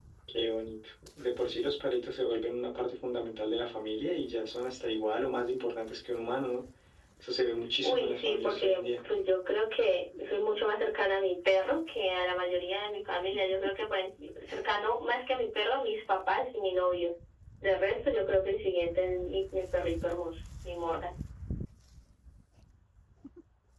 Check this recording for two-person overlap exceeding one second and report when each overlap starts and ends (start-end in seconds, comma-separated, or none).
7.8-9.0